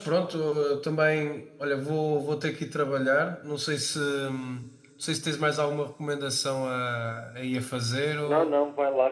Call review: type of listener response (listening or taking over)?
taking over